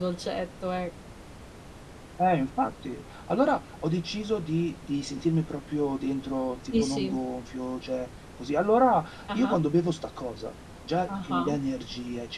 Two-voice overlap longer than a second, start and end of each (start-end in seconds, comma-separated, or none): none